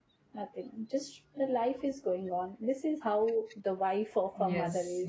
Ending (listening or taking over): taking over